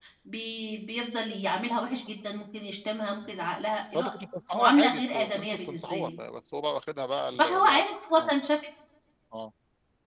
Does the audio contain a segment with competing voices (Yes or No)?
Yes